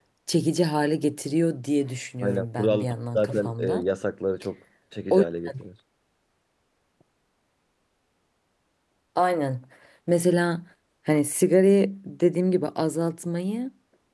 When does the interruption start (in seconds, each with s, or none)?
2.2 s